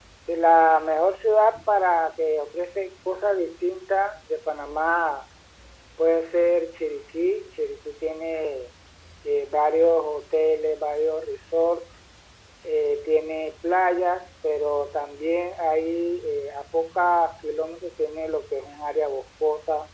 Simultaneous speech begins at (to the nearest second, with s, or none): none